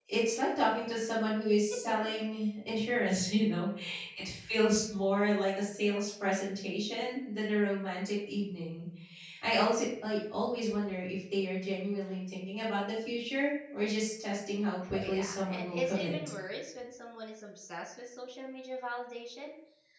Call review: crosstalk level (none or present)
present